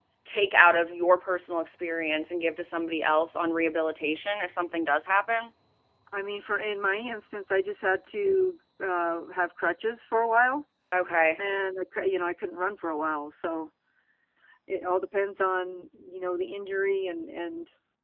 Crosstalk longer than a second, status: none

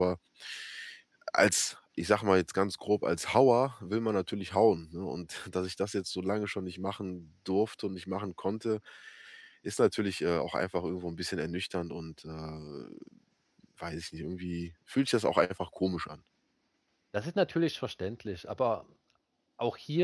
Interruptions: none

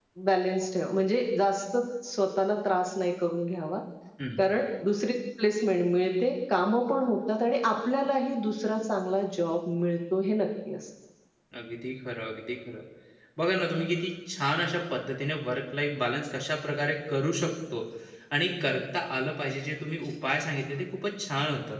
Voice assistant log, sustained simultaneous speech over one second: none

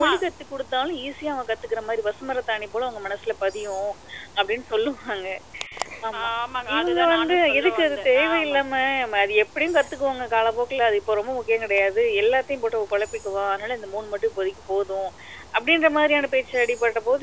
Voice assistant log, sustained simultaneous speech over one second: present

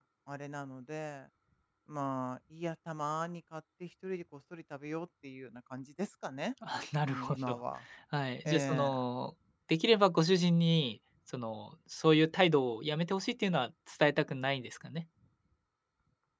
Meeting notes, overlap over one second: none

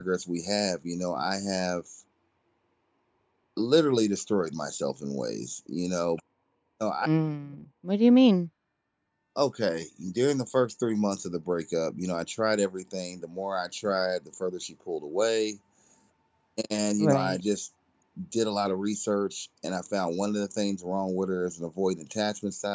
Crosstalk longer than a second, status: none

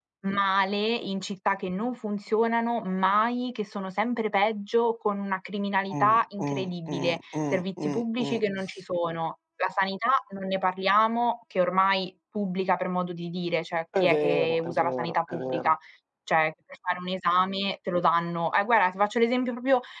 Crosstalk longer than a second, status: present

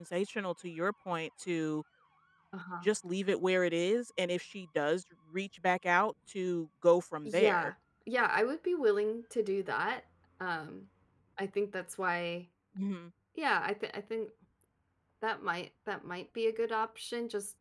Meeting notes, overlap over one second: none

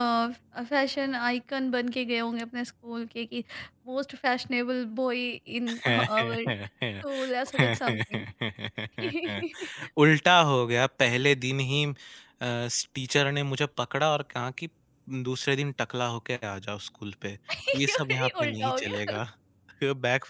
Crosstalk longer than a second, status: present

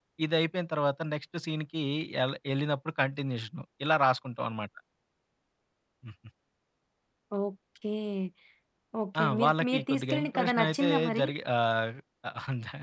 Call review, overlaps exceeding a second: present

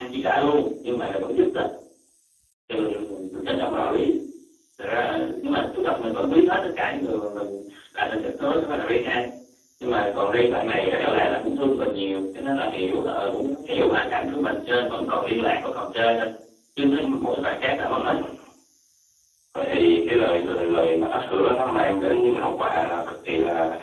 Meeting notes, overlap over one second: none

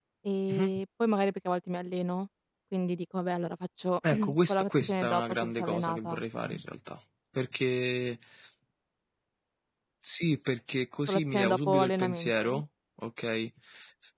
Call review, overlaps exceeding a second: present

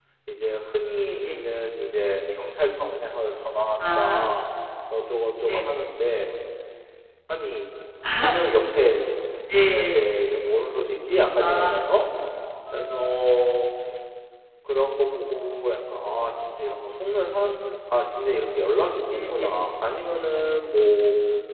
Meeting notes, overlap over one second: none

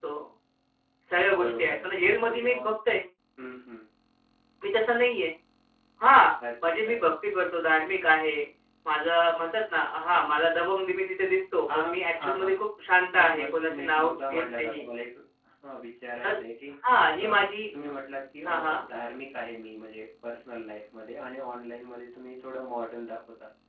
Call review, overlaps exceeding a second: present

